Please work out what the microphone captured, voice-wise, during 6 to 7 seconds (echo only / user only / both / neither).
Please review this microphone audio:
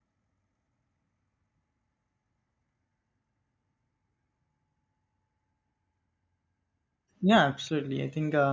neither